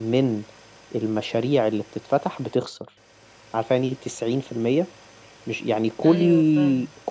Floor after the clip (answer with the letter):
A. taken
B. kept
B